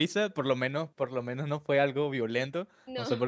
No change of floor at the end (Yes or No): Yes